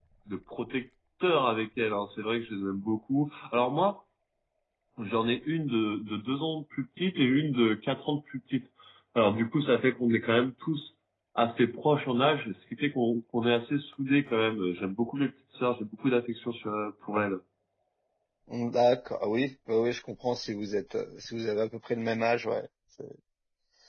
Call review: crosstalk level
none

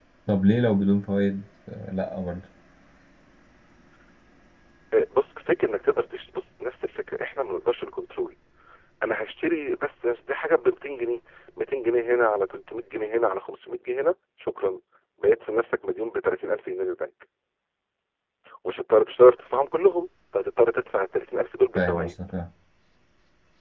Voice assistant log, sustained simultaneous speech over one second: none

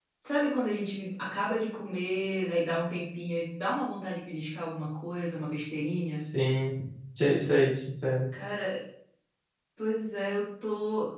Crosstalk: none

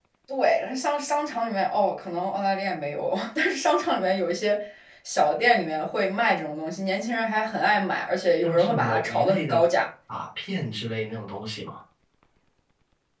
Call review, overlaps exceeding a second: present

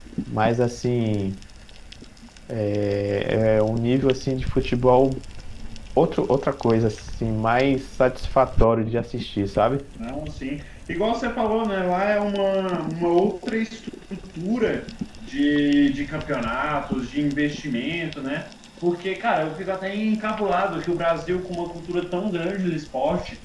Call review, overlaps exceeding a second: none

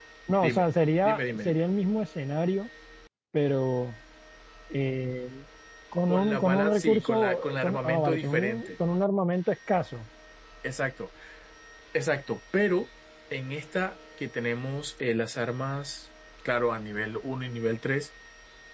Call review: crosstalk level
present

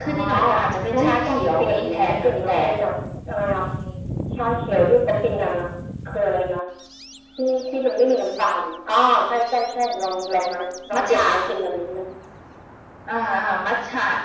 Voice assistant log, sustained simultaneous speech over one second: present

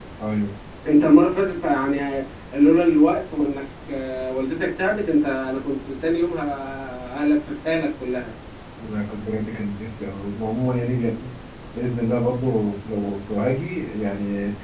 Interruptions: none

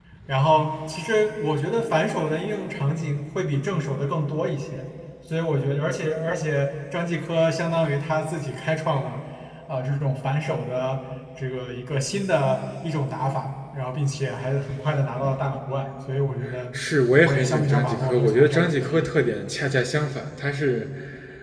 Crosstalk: present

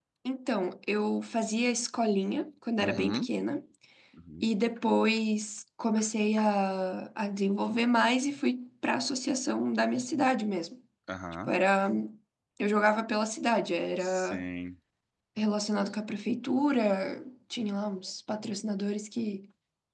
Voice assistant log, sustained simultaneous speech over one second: none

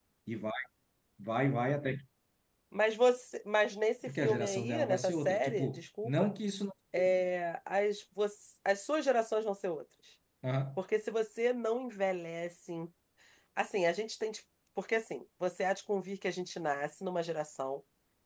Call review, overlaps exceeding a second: present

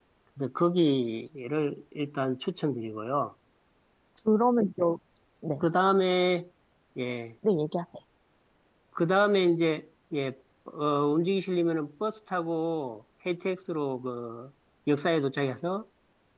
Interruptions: none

